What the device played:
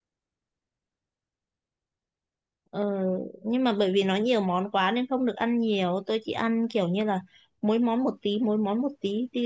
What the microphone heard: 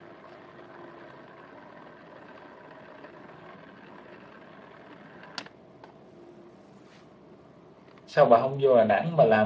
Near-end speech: present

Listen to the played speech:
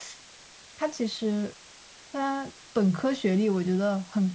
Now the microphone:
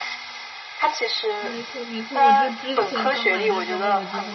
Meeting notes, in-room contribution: present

